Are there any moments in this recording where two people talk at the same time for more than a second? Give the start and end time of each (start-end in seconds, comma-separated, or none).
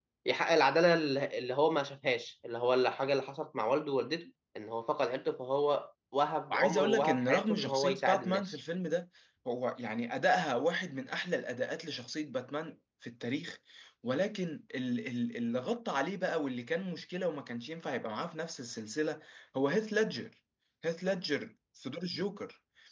6.5-8.6